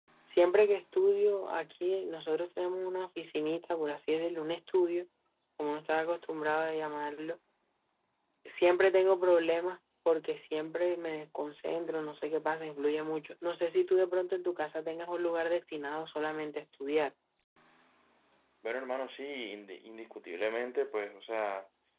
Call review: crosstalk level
none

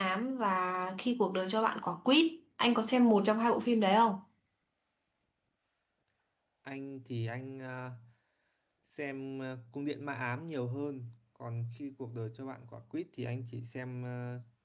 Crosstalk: none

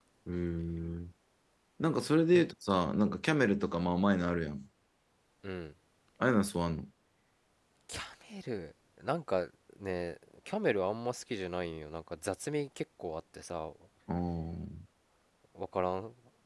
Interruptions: none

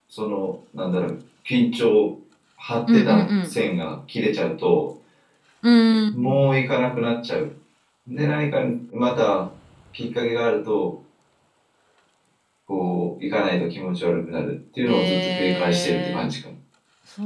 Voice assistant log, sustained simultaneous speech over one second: present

